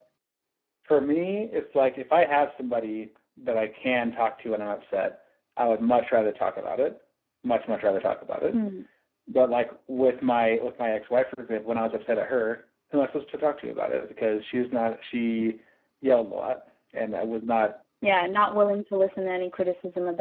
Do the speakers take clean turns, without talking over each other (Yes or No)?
Yes